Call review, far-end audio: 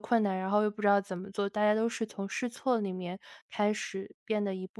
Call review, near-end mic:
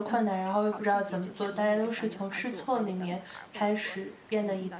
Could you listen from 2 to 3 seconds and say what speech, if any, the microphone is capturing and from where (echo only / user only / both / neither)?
both